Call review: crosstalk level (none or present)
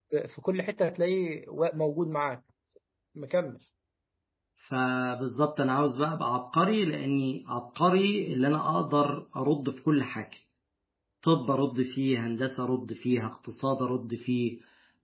none